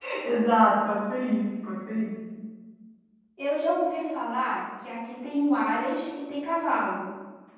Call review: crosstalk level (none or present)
none